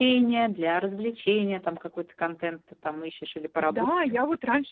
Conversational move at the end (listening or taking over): taking over